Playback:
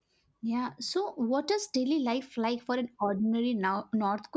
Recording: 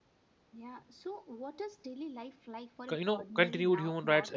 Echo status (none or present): present